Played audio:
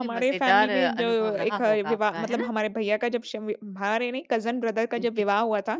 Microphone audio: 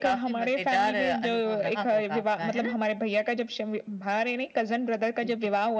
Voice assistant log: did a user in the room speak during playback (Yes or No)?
No